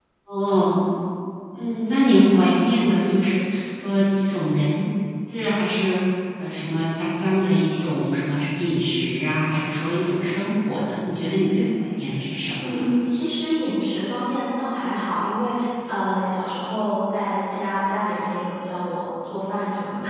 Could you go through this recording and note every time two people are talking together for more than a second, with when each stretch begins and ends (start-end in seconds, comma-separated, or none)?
none